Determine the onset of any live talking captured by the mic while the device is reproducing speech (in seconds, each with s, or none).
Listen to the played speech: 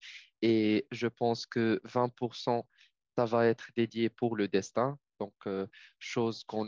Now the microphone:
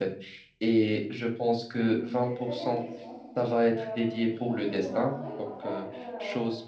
1.7 s